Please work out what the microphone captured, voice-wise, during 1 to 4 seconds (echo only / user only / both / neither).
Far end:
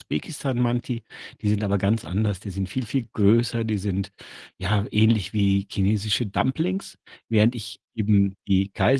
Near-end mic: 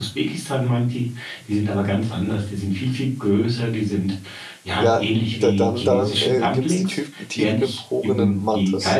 echo only